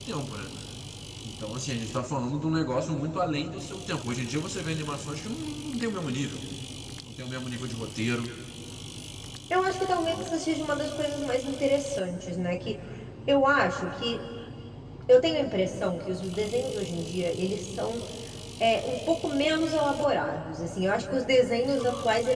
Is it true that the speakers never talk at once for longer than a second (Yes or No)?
Yes